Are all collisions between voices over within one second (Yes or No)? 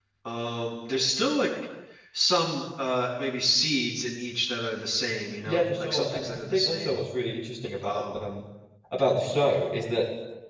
No